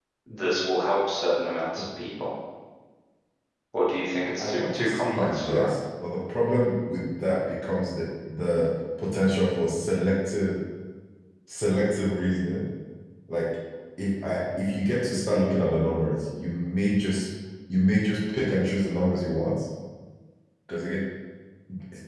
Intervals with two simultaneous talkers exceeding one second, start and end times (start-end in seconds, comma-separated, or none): 4.4-5.7